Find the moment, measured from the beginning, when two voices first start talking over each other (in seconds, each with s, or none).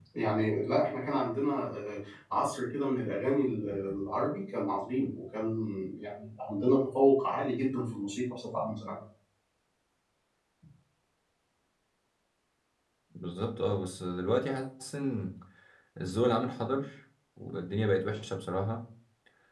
none